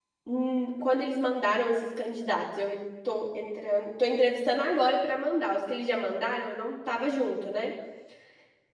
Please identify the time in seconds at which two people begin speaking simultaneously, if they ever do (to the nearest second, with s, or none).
none